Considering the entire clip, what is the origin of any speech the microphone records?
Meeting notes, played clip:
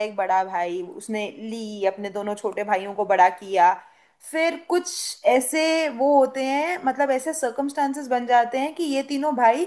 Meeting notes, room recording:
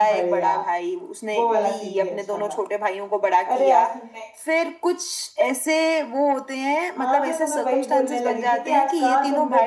both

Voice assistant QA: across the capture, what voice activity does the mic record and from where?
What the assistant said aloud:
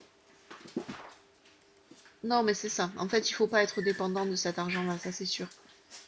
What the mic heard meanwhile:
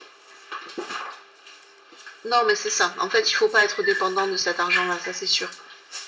echo only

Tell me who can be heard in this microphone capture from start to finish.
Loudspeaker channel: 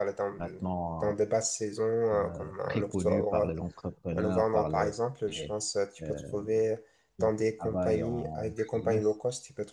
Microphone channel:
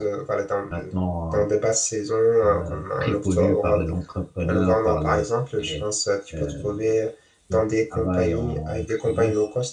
echo only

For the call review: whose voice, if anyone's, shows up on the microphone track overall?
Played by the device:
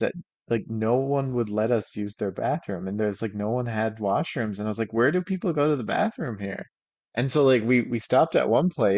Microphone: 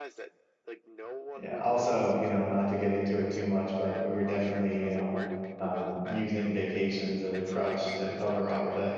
both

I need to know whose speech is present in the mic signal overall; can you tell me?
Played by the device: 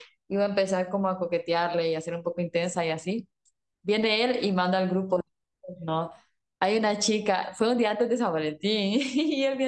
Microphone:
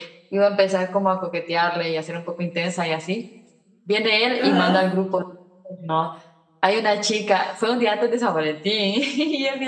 both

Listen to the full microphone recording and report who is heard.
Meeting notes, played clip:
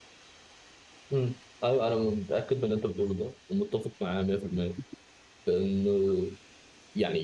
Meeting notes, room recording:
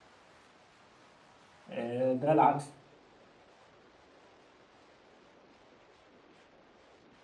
user only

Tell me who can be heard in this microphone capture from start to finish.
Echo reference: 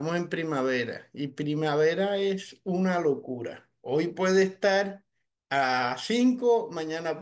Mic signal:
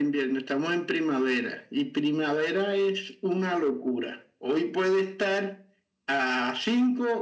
echo only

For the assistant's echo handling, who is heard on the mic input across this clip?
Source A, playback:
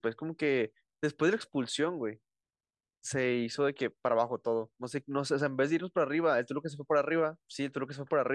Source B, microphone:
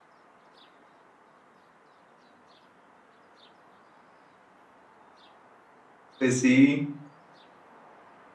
user only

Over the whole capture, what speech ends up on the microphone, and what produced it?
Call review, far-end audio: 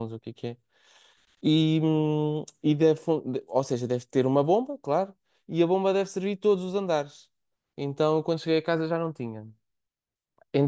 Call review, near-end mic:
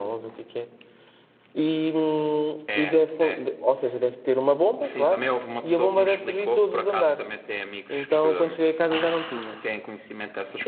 both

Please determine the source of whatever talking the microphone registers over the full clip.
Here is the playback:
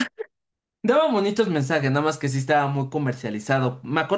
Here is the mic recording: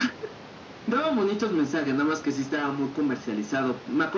echo only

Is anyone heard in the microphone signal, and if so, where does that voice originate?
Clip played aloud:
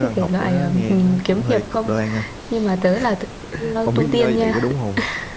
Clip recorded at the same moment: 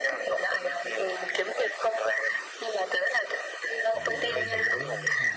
both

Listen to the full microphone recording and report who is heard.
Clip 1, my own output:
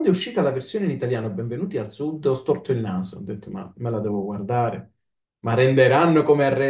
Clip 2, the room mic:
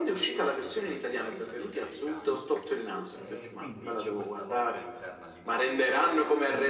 both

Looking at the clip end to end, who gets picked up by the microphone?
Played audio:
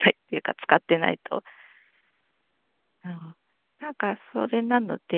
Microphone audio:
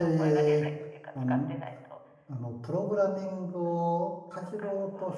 both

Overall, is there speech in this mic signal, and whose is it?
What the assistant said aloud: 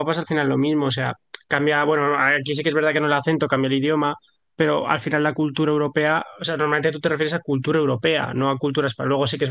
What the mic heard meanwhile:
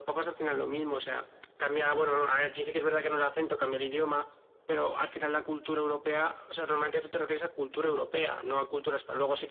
echo only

